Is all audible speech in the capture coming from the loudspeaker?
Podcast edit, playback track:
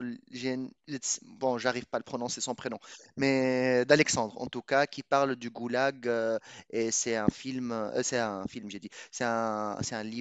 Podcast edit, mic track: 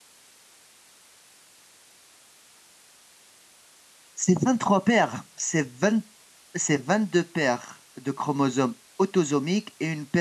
No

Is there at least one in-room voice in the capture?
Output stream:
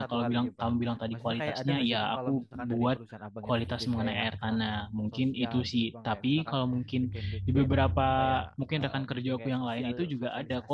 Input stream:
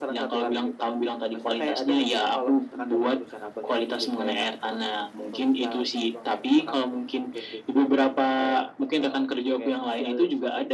No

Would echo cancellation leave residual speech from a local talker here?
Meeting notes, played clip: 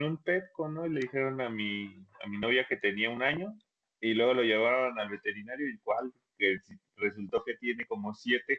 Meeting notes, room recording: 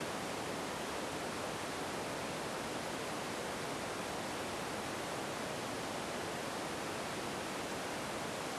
No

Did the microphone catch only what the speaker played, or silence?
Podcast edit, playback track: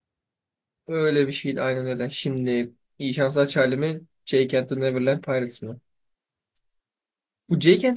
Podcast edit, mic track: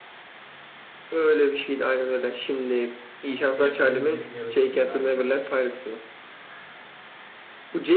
No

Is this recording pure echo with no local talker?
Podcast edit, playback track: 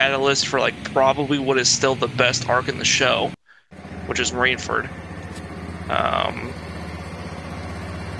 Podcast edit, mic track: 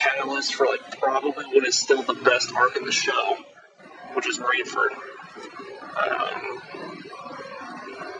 Yes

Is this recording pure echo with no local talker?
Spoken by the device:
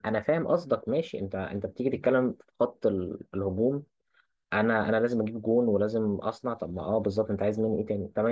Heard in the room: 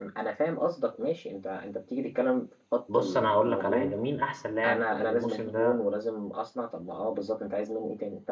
No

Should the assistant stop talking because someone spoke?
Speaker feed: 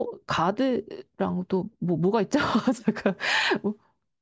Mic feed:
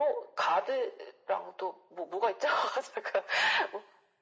No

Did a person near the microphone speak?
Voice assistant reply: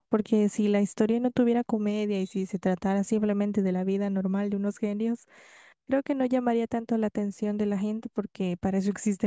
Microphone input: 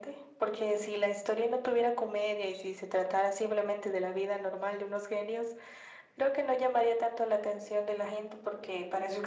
No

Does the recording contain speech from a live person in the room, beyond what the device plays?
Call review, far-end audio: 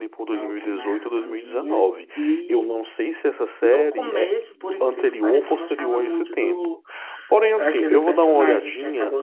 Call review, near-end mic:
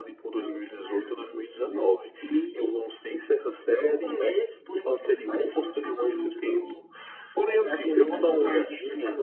No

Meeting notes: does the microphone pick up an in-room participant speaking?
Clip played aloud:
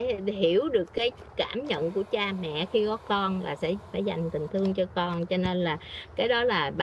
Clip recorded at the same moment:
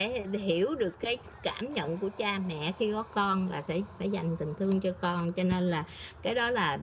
No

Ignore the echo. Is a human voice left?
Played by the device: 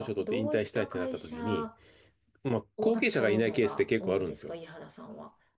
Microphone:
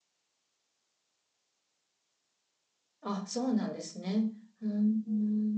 Yes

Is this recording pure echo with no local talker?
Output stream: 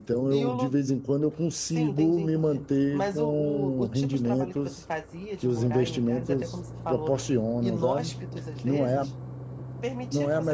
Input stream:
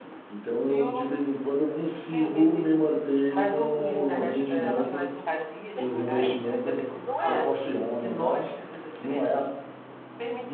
No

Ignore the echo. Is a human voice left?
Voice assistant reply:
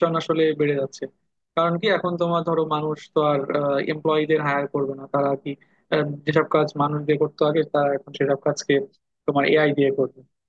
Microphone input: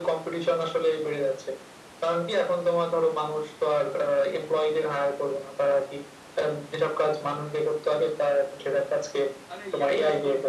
Yes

